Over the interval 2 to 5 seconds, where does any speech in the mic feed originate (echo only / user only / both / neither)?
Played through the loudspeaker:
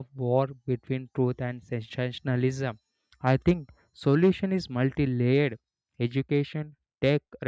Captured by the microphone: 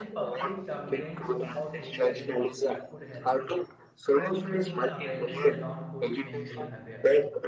both